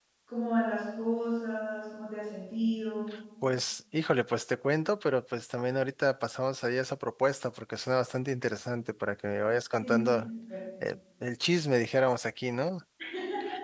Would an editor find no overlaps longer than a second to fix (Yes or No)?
Yes